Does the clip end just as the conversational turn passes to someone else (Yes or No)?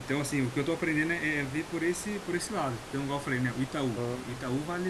No